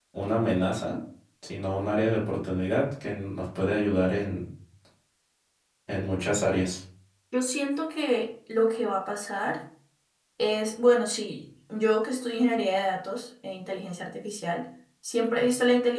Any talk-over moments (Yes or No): No